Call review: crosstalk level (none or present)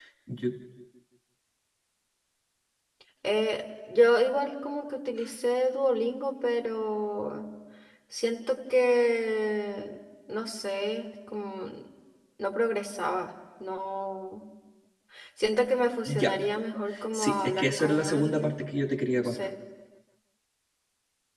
present